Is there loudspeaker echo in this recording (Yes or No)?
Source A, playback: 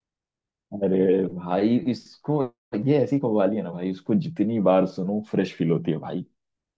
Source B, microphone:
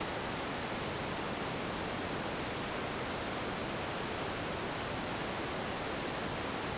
No